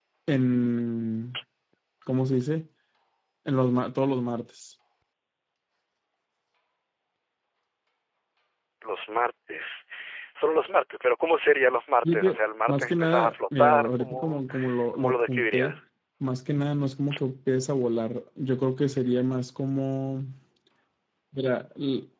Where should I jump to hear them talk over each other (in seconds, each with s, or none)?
12.0 s